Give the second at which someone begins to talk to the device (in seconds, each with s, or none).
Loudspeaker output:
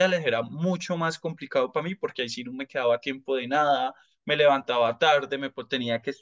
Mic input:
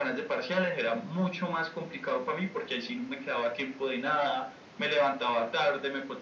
none